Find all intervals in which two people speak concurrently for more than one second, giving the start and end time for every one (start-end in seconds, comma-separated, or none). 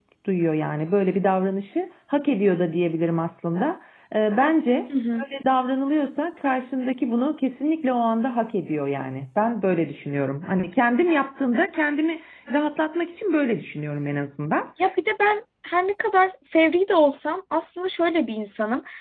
none